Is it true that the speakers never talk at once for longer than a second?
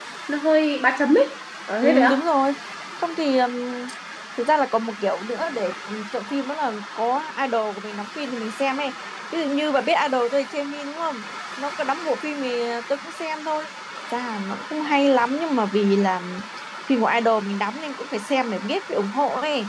Yes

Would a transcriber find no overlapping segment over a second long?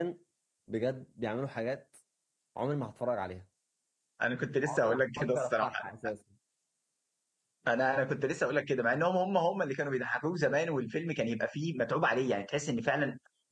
No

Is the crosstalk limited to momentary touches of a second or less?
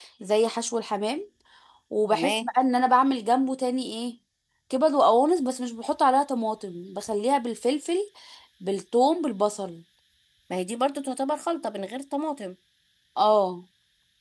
Yes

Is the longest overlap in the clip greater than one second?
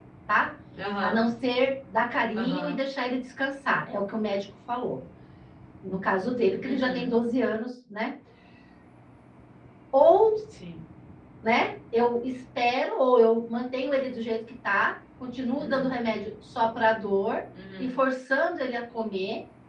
No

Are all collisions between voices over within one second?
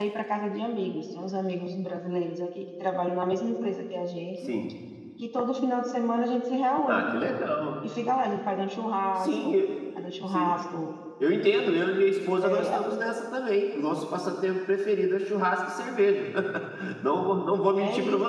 Yes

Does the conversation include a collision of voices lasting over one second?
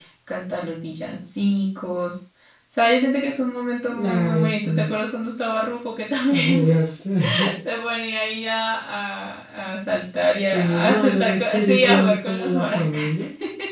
Yes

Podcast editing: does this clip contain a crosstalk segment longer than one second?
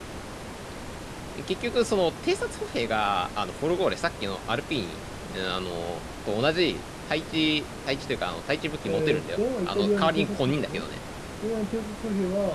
Yes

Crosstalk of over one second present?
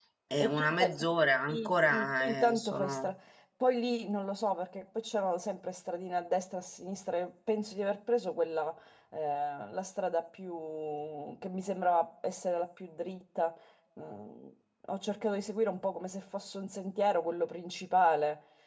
Yes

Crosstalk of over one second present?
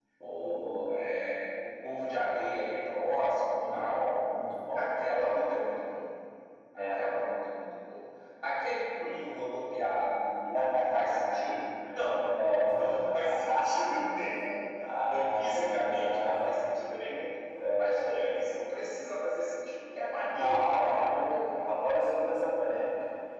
Yes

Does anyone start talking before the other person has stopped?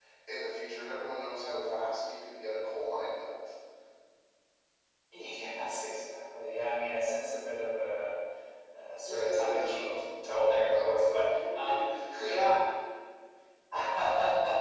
Yes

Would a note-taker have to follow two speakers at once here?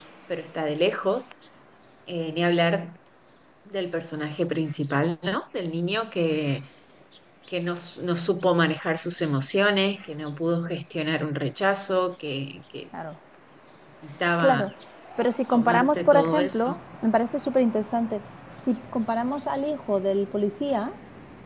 Yes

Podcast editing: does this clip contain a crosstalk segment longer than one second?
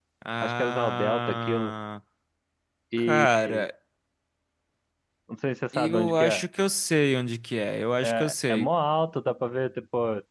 Yes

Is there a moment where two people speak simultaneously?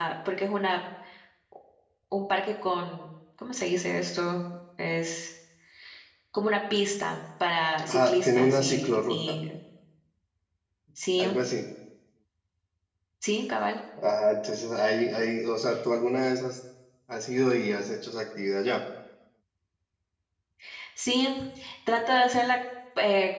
Yes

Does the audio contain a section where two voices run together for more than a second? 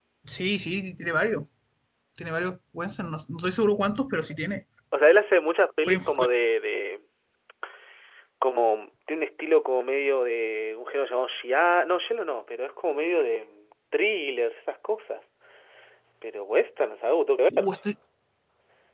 No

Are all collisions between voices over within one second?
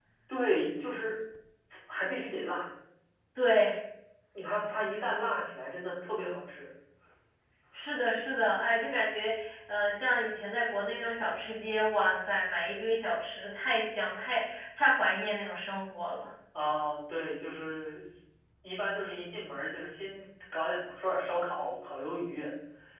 Yes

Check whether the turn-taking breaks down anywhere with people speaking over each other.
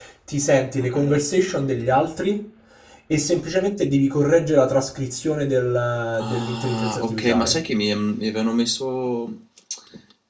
Yes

